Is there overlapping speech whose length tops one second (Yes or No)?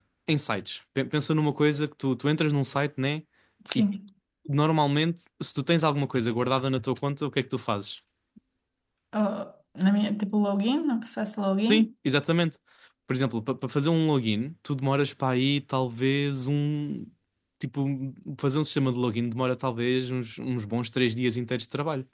No